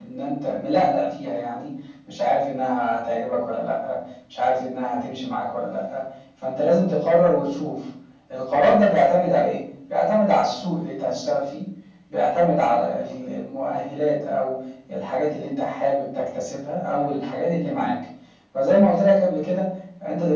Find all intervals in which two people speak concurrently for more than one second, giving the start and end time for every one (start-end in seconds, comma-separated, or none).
none